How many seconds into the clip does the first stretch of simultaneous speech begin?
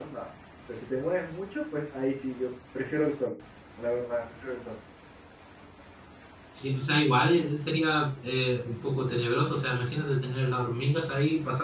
none

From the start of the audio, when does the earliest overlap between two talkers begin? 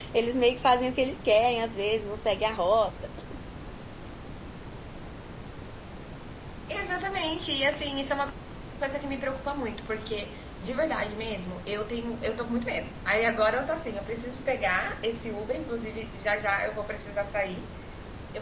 none

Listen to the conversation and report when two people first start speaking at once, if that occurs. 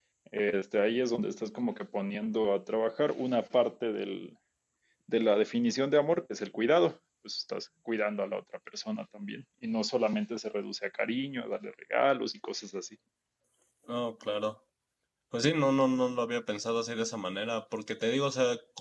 none

